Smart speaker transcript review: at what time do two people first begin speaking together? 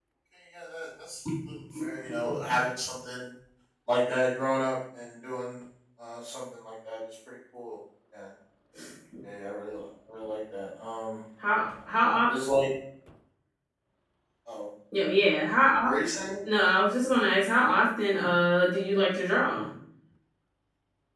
none

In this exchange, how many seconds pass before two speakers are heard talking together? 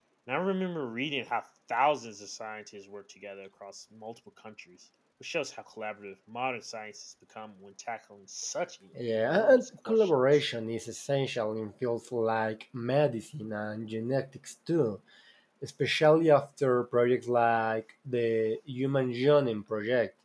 9 s

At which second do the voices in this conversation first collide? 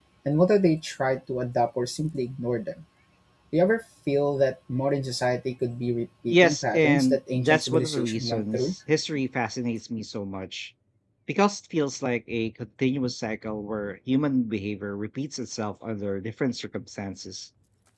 6 s

